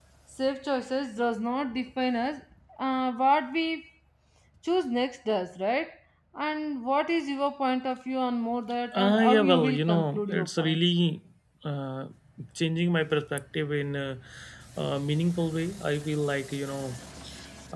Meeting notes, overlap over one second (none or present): present